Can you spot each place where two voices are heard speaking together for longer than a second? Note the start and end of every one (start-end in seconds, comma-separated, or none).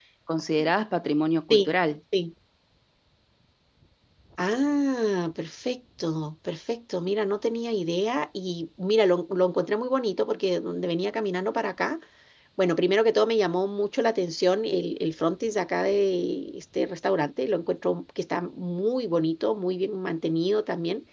none